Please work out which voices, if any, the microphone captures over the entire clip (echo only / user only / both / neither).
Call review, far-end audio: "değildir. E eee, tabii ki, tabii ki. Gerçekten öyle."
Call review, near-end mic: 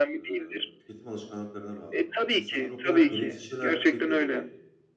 both